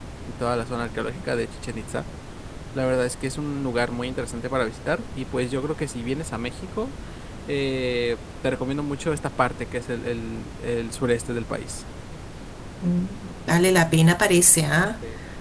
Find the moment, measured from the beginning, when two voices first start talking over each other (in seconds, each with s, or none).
none